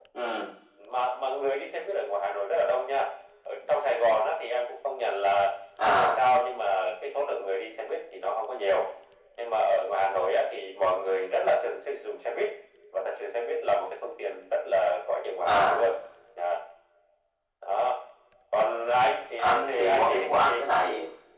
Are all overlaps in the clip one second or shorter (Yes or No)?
No